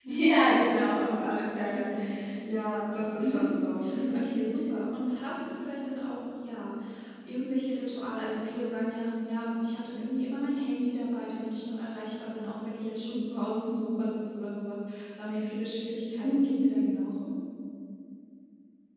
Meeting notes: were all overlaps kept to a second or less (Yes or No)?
Yes